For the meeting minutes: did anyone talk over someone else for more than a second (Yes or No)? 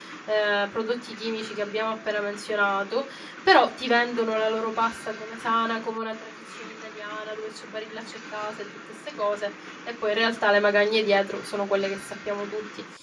No